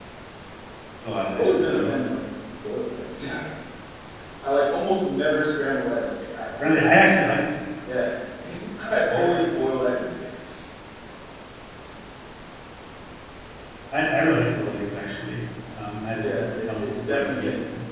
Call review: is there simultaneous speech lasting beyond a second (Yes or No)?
Yes